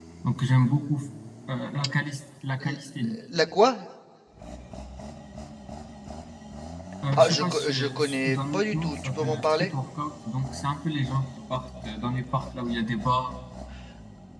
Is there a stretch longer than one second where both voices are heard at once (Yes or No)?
Yes